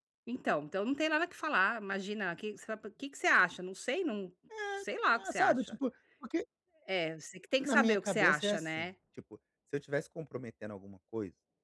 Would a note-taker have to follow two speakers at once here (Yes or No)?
Yes